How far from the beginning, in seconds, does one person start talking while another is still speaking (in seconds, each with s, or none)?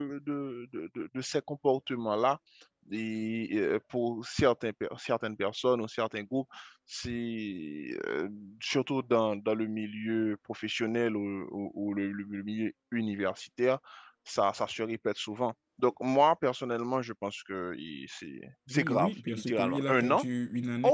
18.7 s